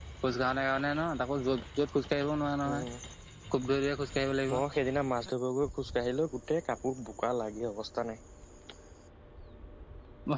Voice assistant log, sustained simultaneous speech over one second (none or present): none